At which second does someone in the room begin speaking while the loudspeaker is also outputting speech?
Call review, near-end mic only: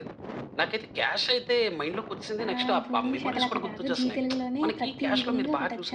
2 s

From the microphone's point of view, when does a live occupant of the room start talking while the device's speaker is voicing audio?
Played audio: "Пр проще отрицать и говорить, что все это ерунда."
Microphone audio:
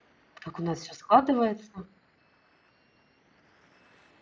0 s

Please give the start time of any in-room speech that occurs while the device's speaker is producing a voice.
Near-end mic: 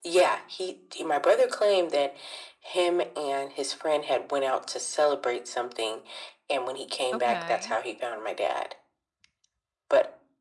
7 s

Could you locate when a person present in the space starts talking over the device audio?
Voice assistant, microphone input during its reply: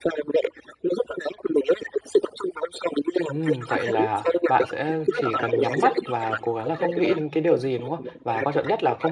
3 s

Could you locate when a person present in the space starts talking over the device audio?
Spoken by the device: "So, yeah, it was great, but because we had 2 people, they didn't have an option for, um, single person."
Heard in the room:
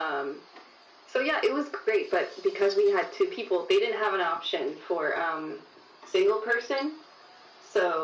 none

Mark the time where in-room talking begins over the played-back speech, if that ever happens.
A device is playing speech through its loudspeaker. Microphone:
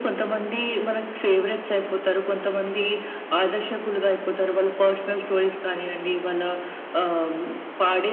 none

